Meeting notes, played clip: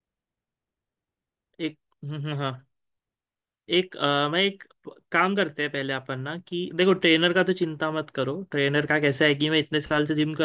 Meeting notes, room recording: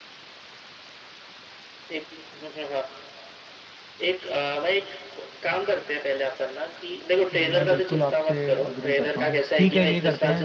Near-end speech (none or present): present